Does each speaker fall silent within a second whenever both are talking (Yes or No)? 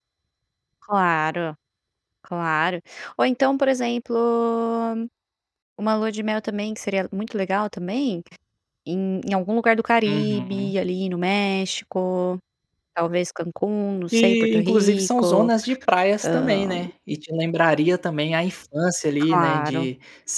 No